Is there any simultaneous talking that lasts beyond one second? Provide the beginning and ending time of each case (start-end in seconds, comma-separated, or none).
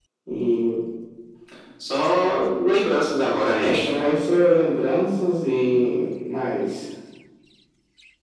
none